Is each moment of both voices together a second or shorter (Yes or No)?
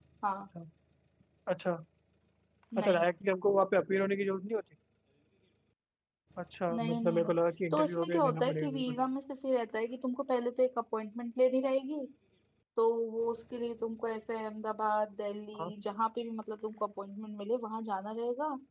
No